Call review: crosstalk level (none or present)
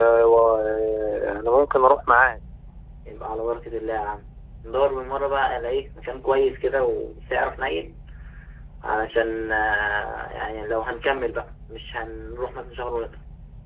none